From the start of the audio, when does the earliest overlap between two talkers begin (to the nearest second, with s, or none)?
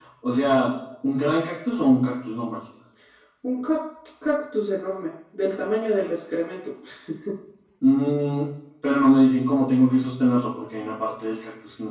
none